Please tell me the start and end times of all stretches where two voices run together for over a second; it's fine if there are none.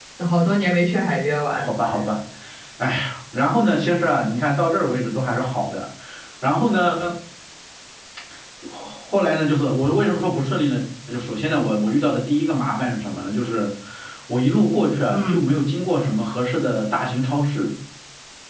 none

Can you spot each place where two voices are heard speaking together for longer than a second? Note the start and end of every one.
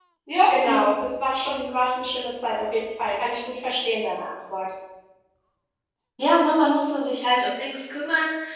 none

